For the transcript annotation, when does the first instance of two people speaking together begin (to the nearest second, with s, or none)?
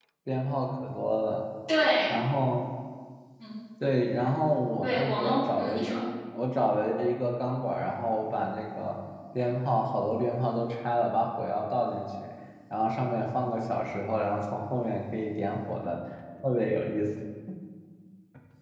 5 s